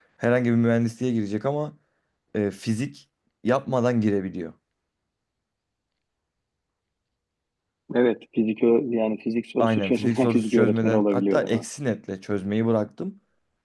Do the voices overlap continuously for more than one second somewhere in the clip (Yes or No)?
Yes